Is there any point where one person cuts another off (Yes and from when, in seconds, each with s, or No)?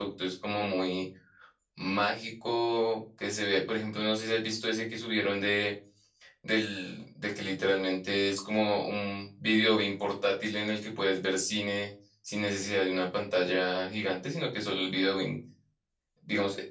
No